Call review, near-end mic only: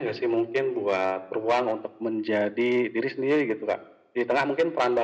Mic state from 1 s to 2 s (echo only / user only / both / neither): echo only